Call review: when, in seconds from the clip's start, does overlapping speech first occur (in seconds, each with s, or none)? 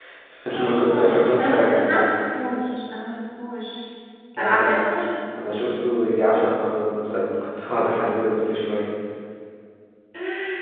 0.5 s